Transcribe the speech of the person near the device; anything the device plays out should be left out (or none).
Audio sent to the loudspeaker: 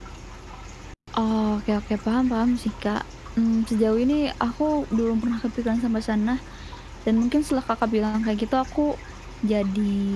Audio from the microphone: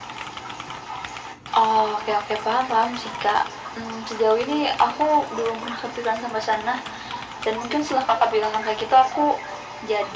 none